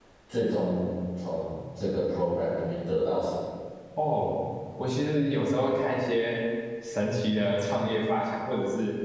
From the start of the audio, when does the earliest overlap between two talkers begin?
none

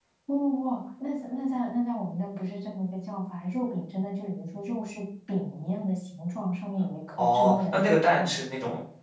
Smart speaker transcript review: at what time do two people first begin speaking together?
7.2 s

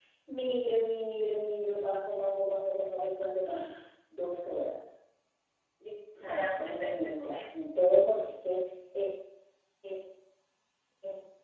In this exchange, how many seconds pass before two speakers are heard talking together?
6.2 s

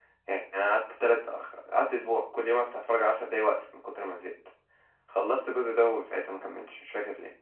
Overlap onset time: none

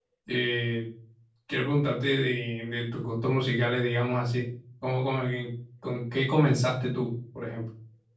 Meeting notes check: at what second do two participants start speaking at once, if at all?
none

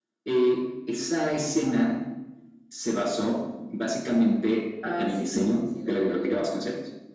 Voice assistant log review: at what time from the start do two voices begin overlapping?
4.8 s

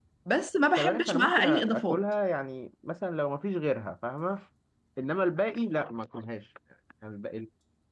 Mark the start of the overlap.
0.8 s

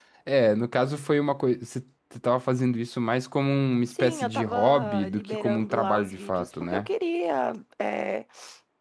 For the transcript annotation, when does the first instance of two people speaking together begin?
3.9 s

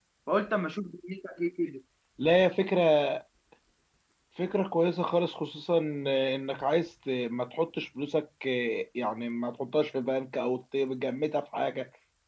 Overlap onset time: none

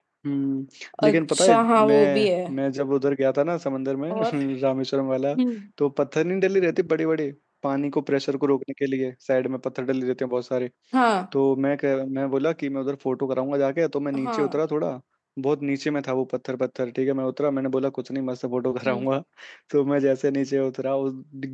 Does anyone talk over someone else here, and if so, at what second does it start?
1.1 s

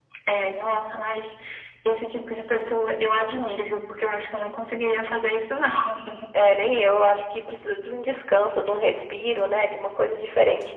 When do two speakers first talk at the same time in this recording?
none

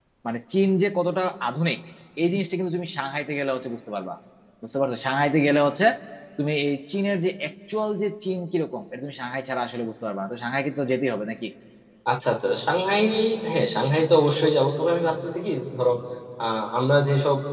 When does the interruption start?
none

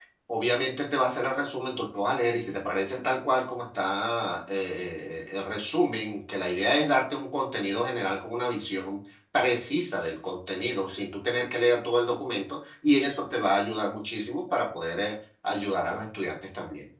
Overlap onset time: none

